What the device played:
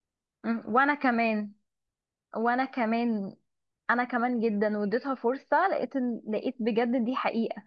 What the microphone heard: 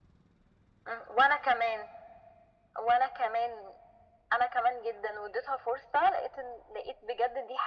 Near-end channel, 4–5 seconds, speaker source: echo only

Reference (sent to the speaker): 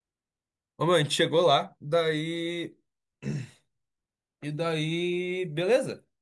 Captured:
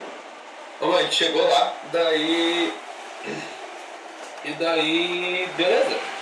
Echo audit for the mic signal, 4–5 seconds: echo only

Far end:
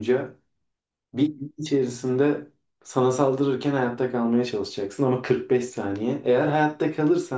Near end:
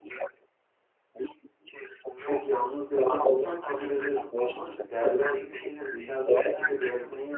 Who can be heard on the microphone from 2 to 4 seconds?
both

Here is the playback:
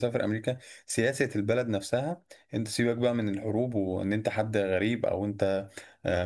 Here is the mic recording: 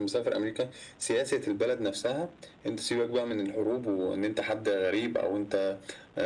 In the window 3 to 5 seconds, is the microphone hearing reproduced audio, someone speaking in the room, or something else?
echo only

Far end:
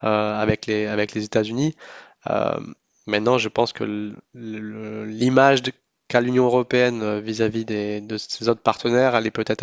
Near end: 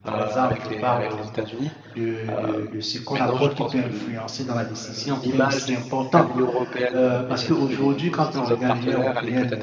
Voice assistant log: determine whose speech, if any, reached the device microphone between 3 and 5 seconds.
both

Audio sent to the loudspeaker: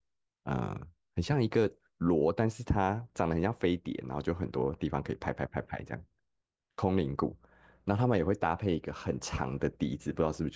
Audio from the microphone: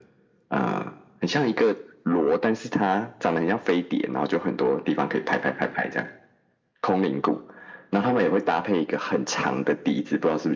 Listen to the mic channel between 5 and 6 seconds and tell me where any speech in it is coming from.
echo only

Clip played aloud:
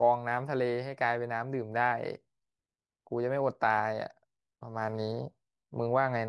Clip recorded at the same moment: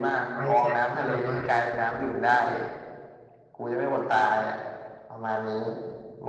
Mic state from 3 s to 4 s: echo only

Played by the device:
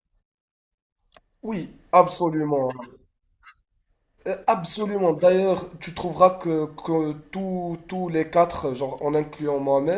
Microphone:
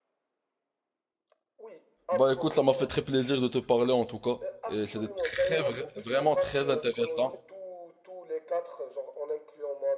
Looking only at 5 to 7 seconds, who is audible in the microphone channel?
both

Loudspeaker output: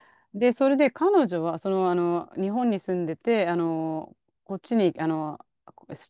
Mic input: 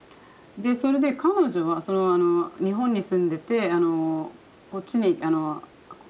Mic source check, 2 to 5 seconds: echo only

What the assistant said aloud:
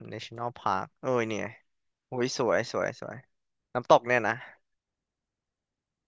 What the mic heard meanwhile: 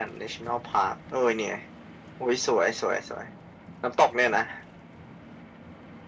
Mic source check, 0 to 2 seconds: echo only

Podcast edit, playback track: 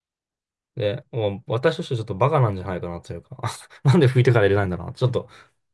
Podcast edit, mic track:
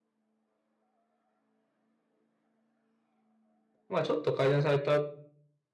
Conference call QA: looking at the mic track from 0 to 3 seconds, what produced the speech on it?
neither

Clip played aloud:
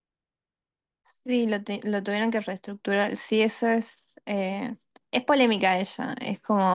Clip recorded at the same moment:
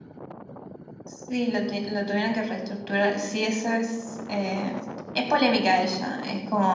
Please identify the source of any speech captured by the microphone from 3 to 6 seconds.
echo only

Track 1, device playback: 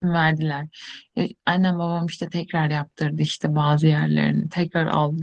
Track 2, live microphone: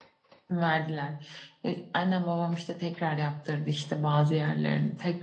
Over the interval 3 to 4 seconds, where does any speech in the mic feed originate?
echo only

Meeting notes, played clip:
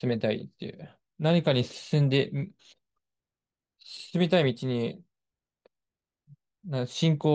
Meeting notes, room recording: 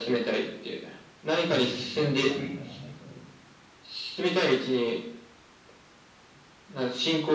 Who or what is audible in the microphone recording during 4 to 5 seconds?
echo only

